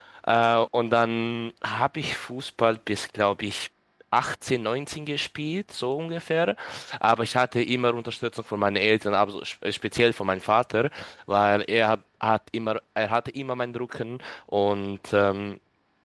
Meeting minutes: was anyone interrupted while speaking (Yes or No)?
No